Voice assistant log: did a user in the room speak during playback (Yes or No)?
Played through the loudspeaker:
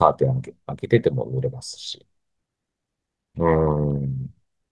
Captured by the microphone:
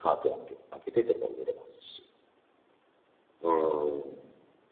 No